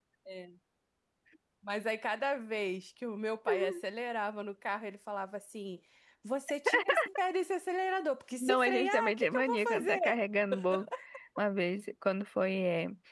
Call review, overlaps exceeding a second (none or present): present